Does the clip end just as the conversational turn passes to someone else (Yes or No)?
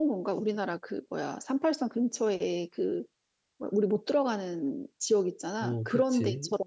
Yes